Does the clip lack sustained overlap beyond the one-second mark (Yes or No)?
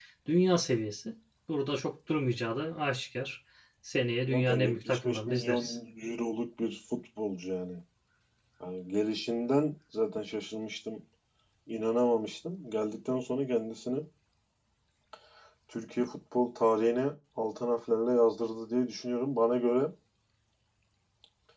No